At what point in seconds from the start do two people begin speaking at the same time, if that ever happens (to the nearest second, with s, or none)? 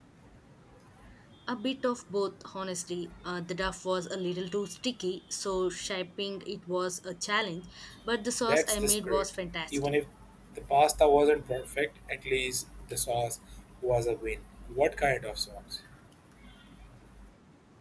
8 s